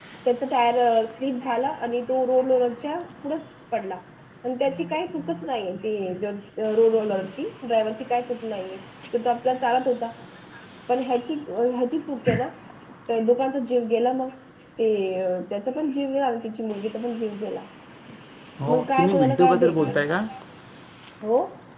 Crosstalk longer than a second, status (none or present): present